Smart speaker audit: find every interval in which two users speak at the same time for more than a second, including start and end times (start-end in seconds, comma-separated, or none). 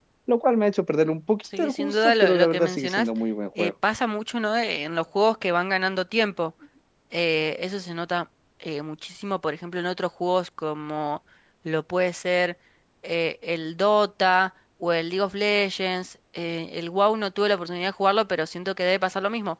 1.6-3.1